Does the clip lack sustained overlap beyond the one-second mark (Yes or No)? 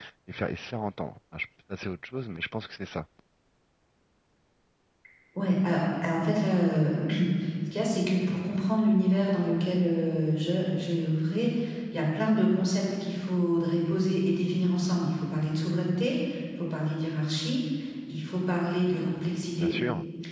Yes